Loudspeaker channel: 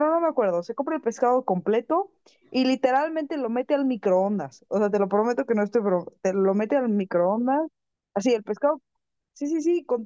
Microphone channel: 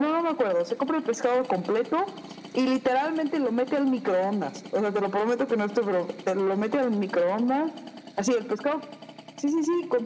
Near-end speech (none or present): none